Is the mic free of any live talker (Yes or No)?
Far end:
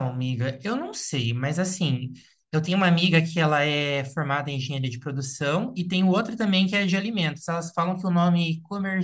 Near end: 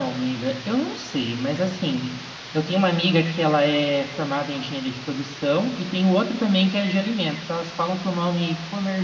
Yes